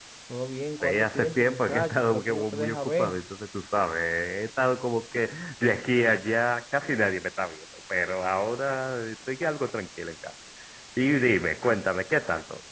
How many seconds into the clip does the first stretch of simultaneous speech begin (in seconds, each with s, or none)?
0.8 s